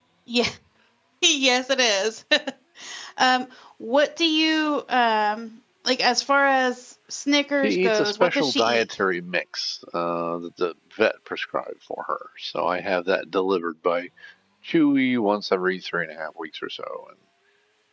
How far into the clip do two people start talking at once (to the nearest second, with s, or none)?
8 s